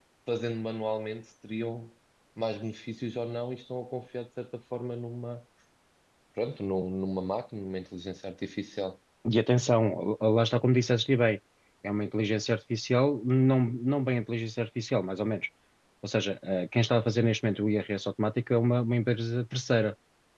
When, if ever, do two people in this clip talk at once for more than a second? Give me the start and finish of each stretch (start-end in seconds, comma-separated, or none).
none